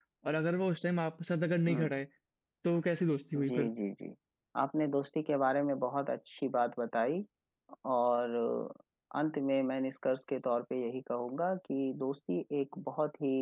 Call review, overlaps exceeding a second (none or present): none